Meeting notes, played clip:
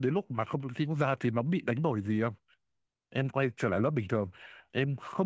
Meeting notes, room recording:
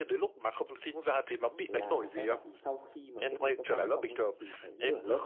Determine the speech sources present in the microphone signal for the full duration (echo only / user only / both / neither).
both